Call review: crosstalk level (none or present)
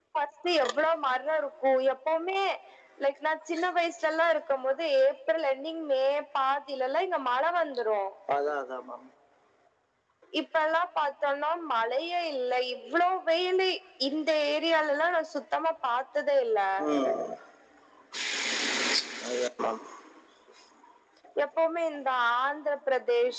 none